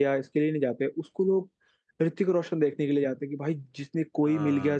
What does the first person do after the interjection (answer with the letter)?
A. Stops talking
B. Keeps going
B